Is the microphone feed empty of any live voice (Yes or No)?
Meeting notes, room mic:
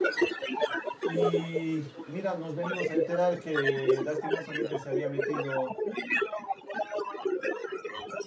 No